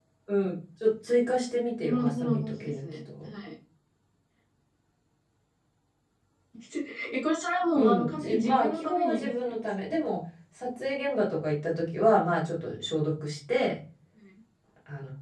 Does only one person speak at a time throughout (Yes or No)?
No